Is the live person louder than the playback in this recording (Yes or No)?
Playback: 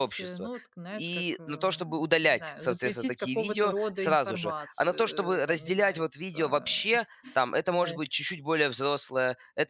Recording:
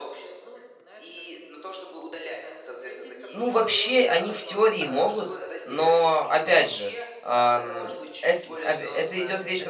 Yes